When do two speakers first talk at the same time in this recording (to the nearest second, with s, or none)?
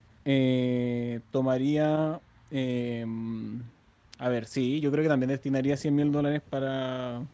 none